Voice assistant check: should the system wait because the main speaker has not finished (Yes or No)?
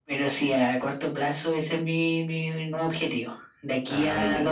Yes